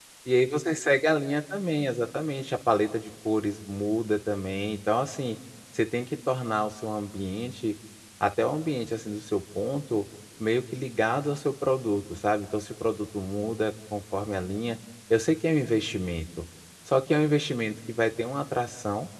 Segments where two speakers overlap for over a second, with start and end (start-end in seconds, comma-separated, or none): none